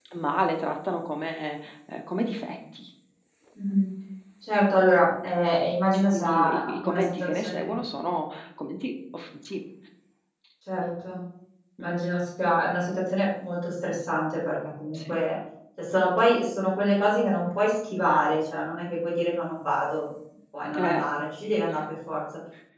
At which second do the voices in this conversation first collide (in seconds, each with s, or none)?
5.9 s